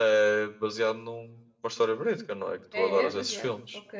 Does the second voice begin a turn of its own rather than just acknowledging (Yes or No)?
Yes